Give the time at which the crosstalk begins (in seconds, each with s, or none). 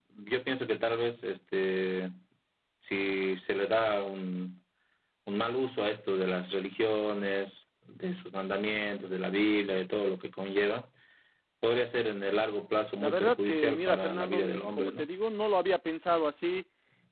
13.0 s